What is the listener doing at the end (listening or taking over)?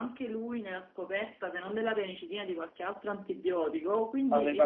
taking over